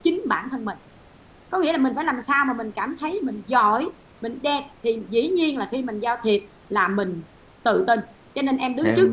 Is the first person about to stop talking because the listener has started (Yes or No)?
No